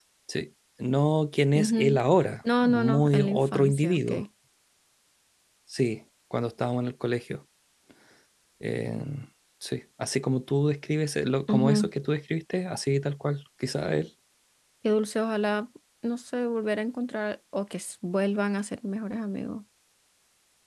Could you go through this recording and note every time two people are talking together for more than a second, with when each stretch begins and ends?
2.6-4.1

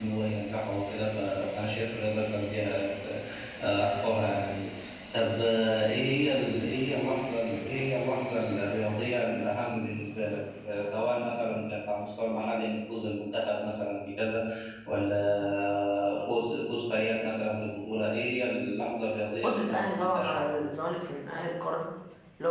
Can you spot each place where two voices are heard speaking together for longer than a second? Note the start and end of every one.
19.4-20.7

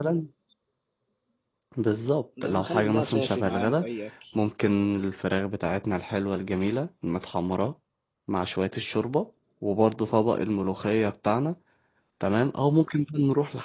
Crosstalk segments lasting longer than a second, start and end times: 2.4-3.9

